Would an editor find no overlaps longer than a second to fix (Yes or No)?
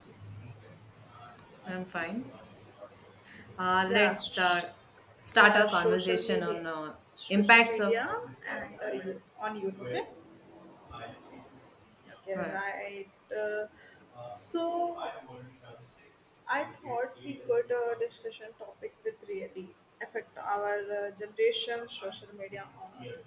No